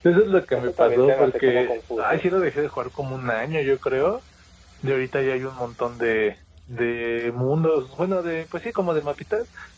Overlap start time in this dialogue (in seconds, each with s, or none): 0.5 s